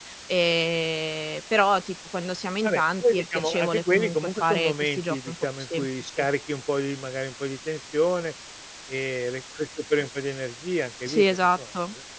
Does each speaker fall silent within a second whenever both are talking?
No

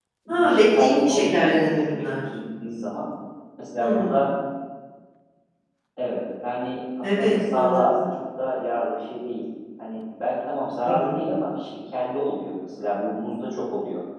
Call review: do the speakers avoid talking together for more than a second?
No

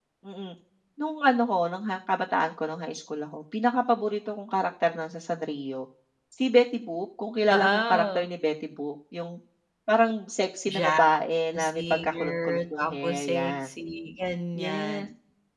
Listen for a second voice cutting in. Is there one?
Yes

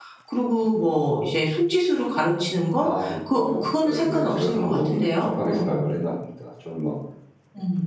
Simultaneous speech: Yes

